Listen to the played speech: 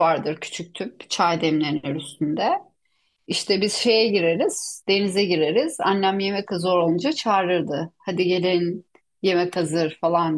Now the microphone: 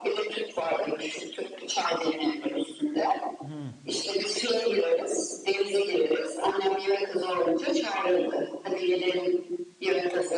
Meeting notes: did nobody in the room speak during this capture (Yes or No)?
No